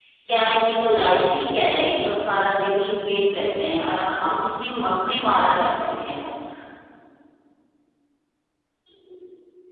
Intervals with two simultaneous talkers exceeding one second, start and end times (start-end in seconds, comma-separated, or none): none